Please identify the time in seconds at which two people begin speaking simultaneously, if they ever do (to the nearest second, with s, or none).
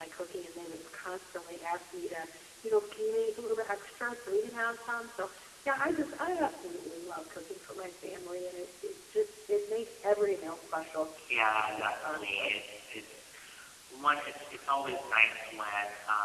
11 s